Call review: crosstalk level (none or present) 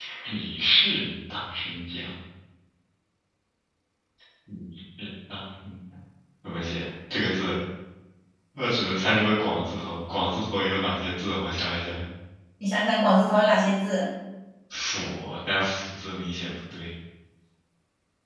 none